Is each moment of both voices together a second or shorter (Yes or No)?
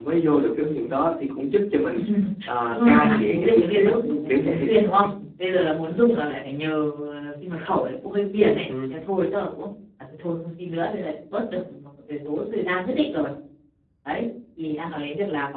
No